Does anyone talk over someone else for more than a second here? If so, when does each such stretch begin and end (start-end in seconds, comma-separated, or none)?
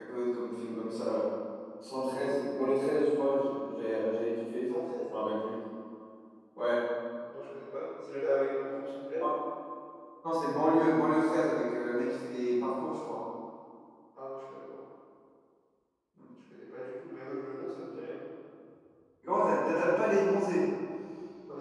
none